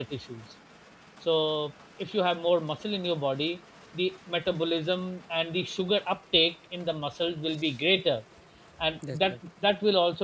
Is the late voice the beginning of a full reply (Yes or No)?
No